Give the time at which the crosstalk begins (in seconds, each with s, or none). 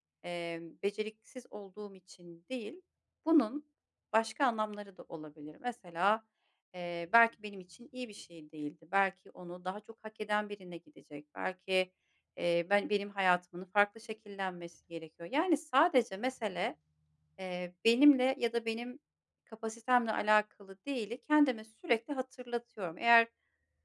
none